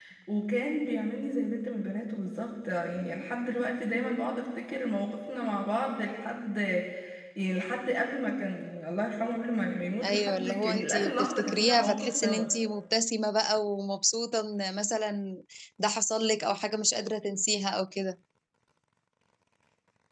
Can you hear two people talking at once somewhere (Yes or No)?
Yes